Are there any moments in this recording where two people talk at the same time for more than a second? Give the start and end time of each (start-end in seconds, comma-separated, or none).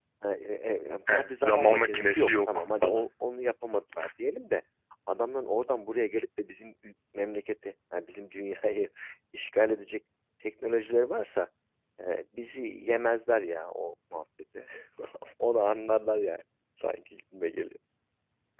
1.1-3.1